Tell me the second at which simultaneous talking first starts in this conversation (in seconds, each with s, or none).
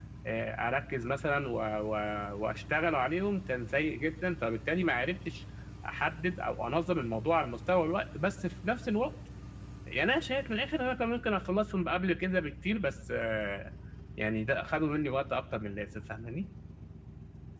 none